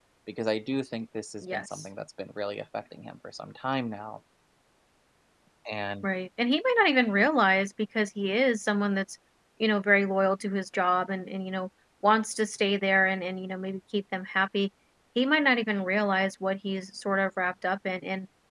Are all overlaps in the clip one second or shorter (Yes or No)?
Yes